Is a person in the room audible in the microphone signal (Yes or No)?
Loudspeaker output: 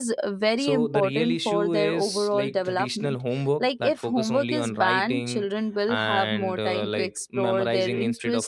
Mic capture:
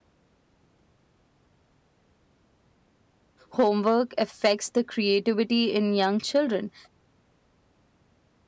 Yes